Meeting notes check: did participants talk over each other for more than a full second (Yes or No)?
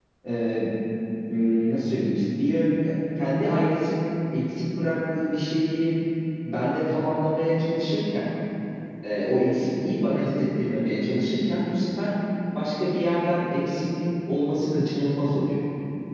No